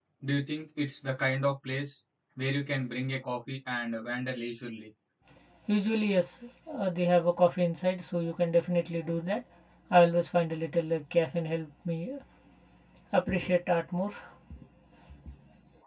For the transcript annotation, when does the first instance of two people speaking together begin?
none

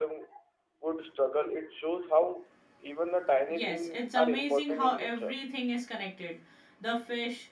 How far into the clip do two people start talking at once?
3.5 s

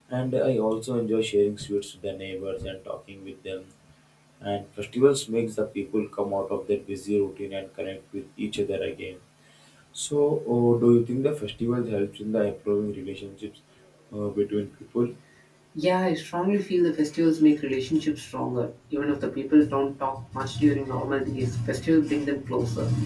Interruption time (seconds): none

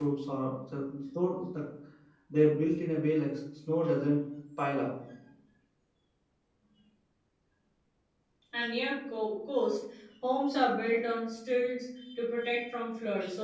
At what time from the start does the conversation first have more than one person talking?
none

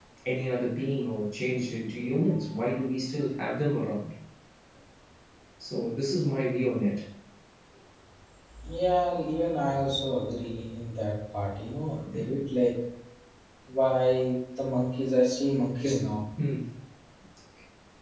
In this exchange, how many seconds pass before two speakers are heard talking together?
none

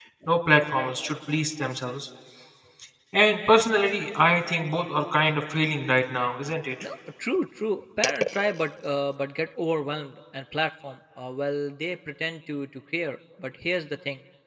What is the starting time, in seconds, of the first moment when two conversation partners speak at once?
none

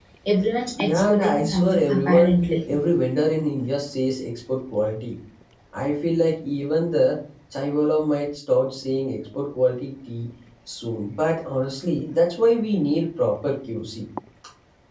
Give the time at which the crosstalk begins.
0.8 s

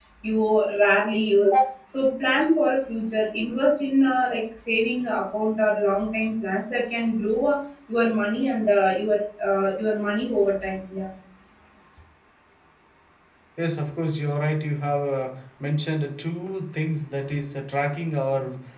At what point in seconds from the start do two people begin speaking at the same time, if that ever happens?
none

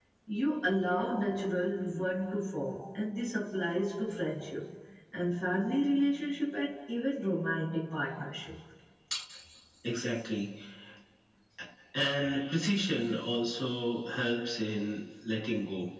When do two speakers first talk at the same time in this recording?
none

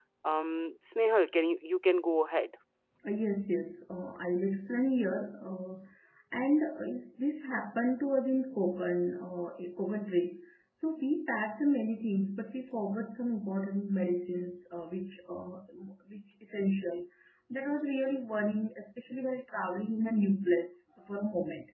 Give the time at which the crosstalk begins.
none

